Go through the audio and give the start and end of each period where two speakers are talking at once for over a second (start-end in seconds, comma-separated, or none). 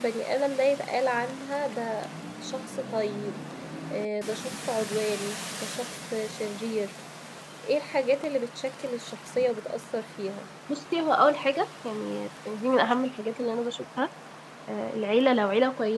none